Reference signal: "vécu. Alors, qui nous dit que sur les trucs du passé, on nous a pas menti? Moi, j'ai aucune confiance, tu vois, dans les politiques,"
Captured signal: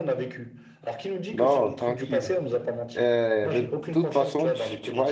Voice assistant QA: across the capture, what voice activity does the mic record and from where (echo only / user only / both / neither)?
both